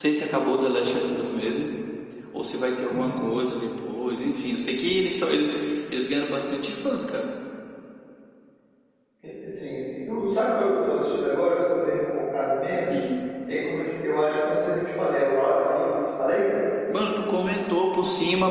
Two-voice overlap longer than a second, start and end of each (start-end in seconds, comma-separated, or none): none